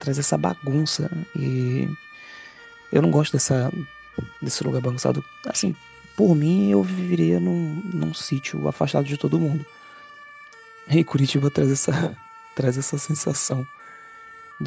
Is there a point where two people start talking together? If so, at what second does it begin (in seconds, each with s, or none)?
none